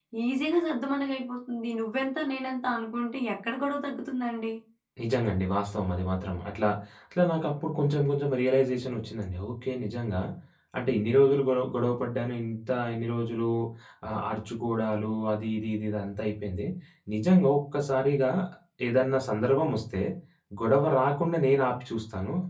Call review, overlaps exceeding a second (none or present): none